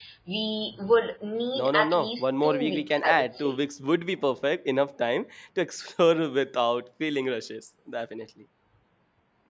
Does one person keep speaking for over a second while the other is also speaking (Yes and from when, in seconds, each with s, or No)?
Yes, from 1.6 s